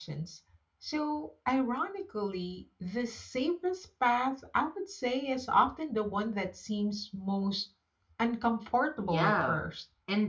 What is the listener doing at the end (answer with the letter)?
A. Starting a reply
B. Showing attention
A